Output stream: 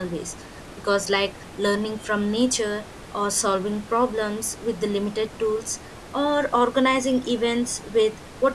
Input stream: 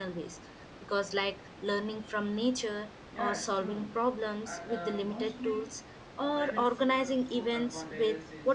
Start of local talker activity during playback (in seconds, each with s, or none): 3.1 s